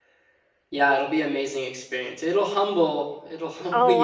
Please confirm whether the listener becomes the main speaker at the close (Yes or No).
Yes